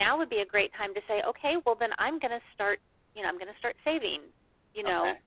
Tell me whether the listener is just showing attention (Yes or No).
Yes